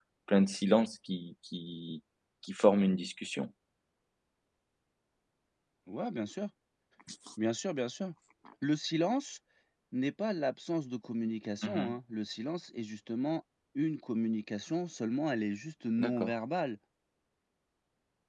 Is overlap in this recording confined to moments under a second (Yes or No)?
Yes